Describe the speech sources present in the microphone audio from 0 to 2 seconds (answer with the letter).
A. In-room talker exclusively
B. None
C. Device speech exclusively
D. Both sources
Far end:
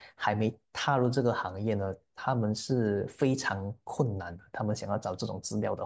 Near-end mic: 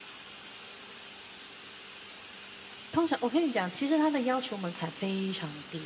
B